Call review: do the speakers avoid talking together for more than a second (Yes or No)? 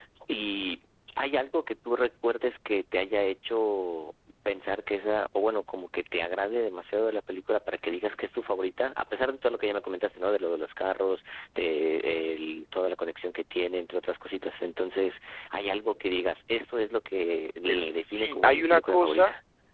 No